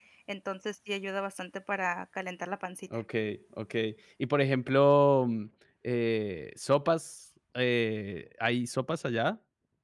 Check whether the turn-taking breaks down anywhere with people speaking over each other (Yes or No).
No